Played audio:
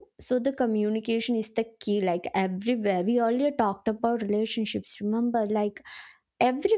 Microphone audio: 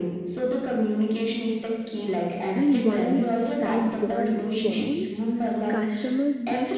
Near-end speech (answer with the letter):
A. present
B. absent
A